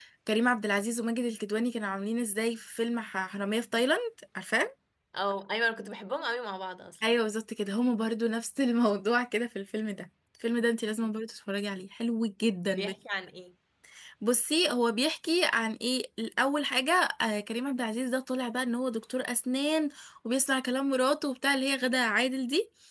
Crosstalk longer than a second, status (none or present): none